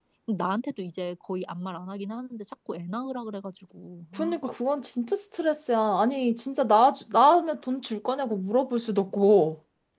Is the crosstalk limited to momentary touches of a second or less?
Yes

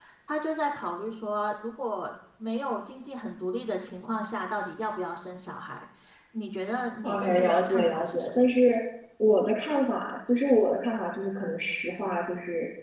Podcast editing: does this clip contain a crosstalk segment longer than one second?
Yes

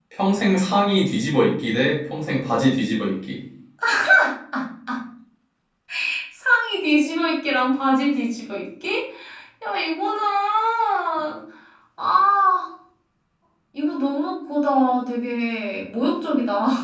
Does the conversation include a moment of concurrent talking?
No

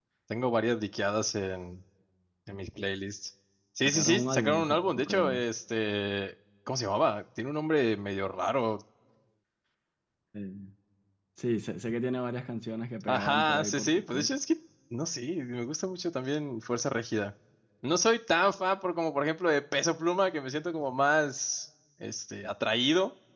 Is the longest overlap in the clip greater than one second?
Yes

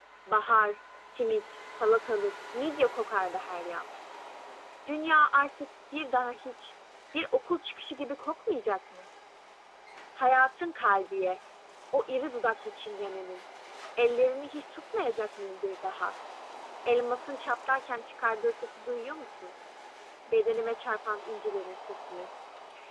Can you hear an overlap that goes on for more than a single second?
No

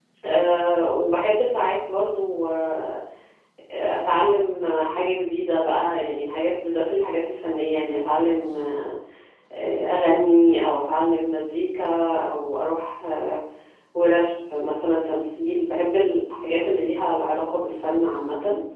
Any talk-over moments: No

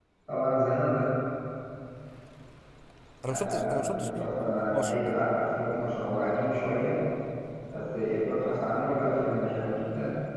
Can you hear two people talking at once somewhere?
Yes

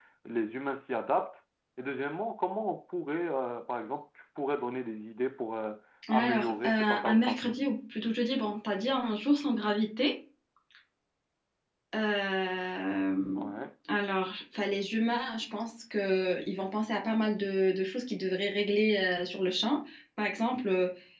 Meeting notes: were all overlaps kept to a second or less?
No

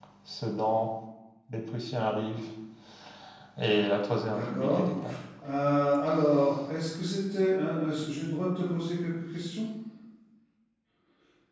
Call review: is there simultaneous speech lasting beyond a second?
No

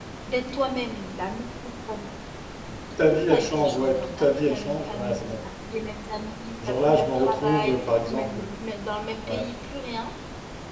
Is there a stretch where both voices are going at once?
Yes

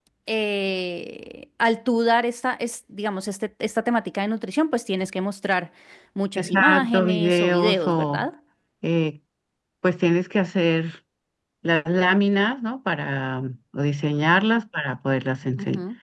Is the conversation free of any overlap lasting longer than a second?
No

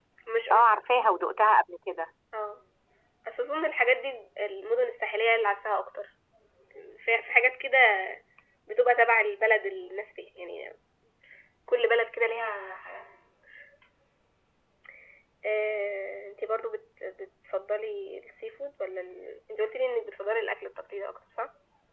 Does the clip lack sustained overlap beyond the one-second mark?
Yes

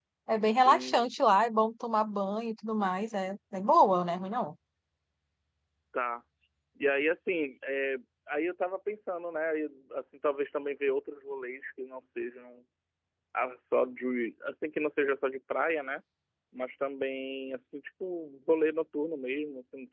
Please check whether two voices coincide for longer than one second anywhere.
No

